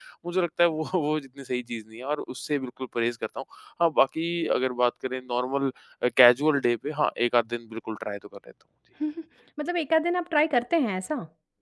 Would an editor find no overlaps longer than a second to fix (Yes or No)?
Yes